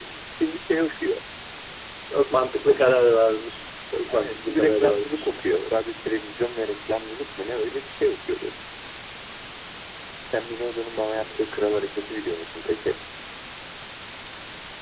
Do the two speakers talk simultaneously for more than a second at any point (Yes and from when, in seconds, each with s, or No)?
Yes, from 4.1 s